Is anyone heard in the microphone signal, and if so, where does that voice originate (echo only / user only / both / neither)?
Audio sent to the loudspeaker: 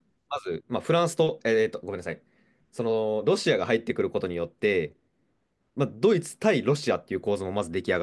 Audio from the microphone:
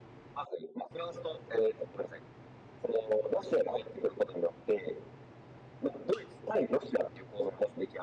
echo only